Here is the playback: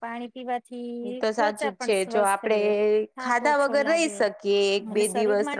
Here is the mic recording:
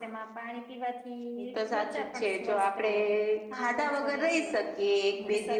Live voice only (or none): none